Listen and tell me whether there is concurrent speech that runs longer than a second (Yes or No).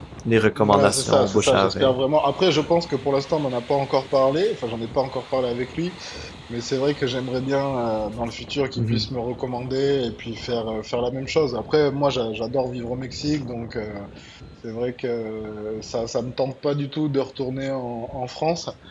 Yes